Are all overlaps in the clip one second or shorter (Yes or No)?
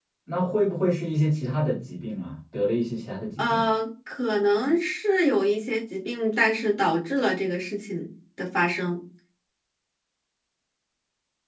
Yes